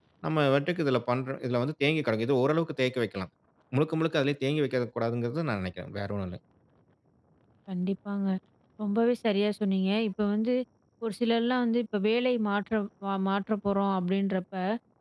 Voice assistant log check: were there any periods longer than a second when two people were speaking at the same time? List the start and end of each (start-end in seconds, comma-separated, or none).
none